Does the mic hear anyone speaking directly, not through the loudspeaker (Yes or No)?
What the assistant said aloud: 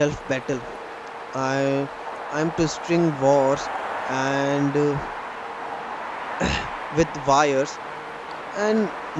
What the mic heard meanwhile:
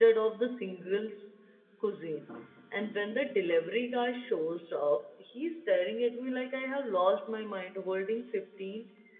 Yes